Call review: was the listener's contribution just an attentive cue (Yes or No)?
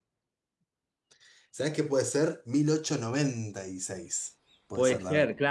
No